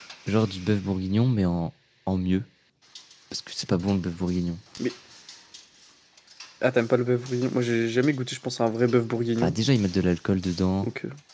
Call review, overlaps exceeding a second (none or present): none